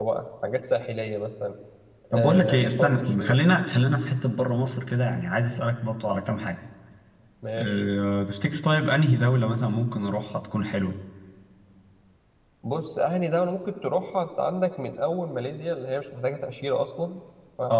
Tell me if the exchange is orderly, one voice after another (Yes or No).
No